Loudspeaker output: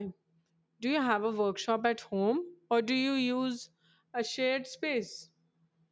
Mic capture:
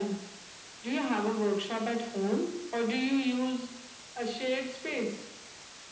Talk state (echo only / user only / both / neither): echo only